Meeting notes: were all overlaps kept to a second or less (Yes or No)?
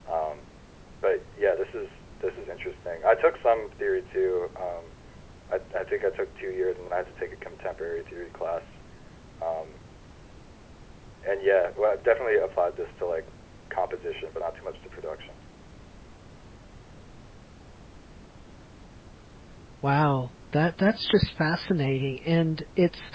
Yes